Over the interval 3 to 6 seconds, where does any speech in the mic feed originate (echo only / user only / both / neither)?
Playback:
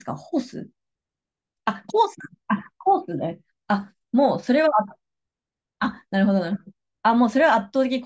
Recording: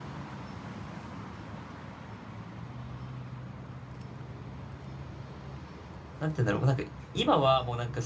neither